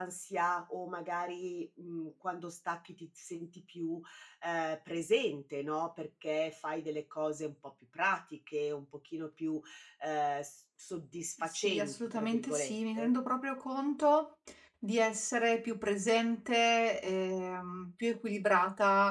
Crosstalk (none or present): present